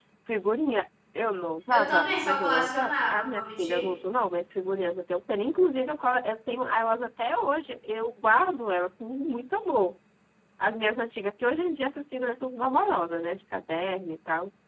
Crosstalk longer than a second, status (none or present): present